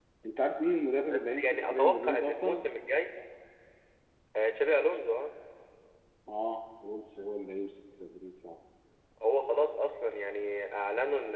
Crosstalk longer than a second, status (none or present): present